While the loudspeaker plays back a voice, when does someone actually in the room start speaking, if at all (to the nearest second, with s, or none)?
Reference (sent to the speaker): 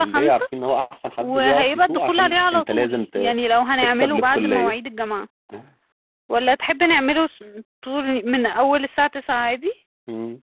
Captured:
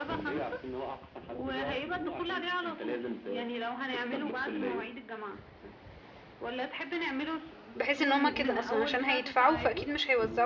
8 s